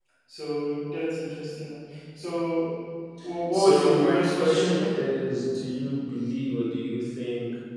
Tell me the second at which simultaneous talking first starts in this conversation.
3.5 s

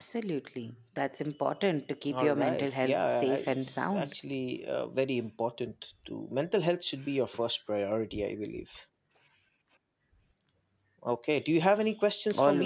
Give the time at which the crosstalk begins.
2.1 s

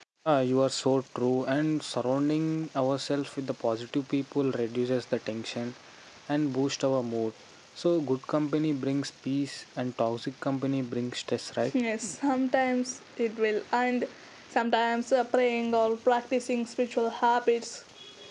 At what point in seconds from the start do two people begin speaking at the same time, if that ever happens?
none

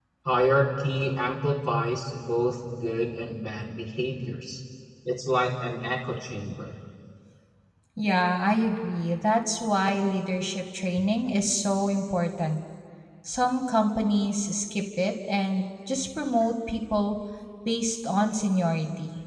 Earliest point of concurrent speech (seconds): none

